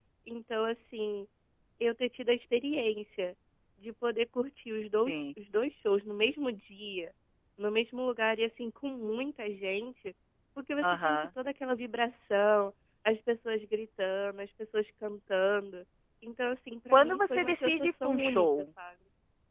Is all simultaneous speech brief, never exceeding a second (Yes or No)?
No